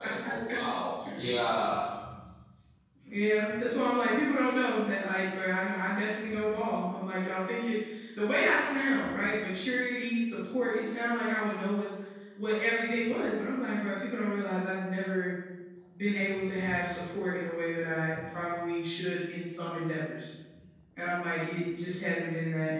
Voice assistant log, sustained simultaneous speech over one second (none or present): none